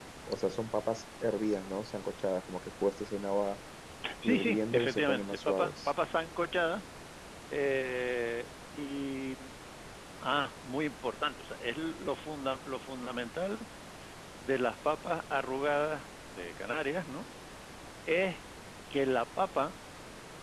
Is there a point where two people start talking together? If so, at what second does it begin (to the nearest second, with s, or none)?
4 s